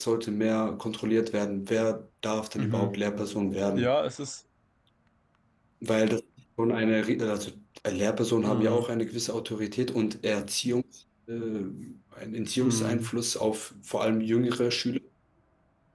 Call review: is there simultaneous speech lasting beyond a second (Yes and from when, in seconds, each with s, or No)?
No